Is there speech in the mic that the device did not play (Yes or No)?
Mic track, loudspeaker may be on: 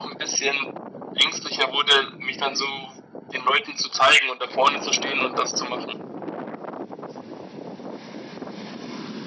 No